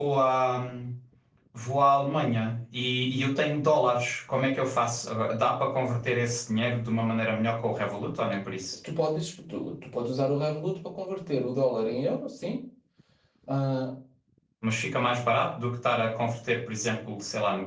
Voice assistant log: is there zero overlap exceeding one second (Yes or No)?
Yes